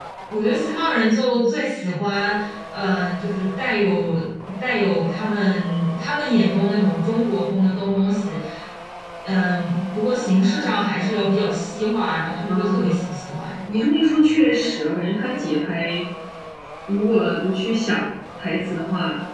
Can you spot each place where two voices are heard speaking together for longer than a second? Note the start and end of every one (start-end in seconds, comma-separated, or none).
none